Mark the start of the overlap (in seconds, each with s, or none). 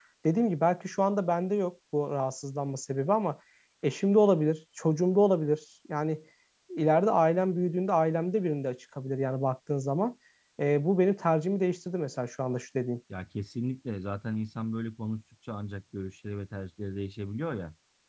none